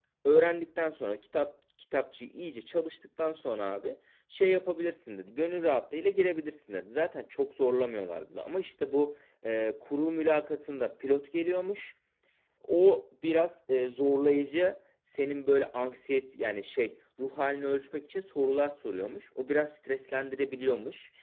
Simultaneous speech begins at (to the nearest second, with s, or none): none